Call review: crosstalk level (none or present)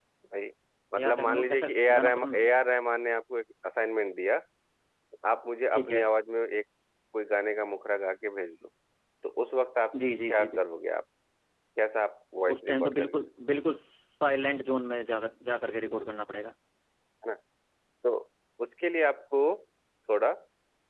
present